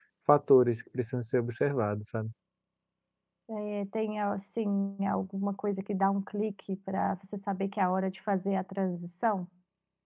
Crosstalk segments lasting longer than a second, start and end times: none

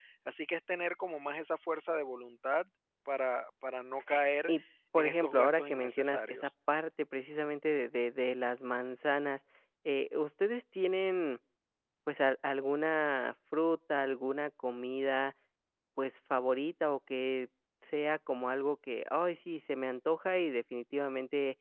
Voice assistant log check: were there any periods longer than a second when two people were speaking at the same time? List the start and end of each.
5.0-6.5

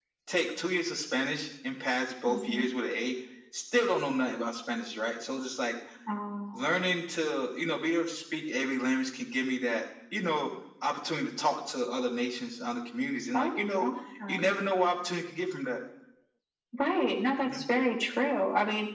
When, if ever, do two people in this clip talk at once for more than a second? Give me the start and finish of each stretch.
none

